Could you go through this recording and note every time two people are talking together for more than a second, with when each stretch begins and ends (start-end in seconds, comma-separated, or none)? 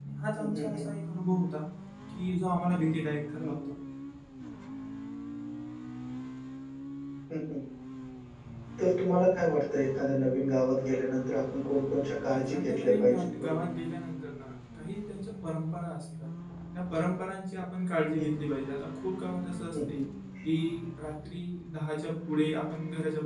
12.3-13.6